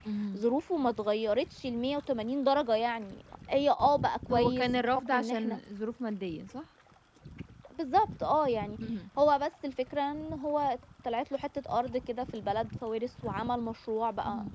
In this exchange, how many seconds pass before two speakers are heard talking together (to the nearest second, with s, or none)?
4 s